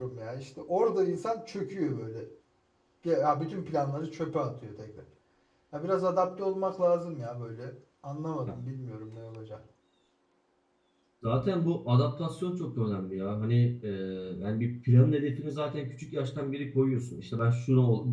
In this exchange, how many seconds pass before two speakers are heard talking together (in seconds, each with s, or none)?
none